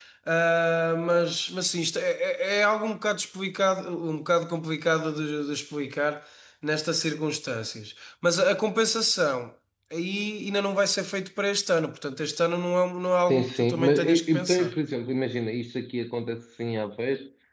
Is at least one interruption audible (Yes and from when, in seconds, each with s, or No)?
Yes, from 13.3 s